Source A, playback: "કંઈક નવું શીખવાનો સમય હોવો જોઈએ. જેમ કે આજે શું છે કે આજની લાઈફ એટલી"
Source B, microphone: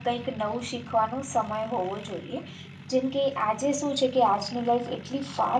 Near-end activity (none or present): none